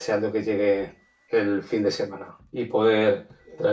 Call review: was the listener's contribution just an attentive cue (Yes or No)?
Yes